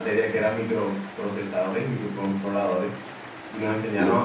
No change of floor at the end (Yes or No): Yes